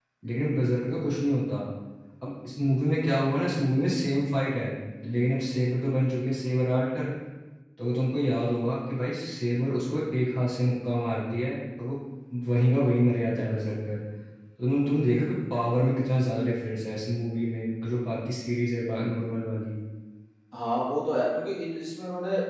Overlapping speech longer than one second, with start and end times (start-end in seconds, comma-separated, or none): none